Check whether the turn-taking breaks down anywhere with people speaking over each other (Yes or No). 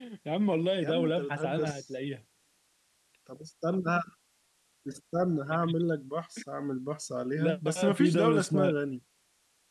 Yes